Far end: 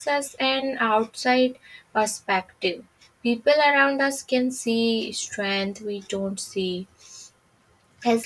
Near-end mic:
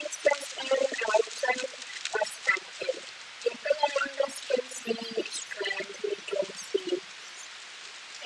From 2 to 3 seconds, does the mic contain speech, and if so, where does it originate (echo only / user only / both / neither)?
echo only